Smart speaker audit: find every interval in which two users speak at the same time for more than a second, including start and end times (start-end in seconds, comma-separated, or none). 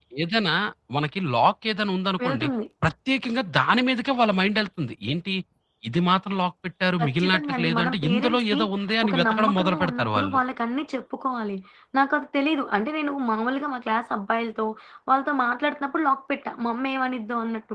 7.0-8.6, 9.1-10.4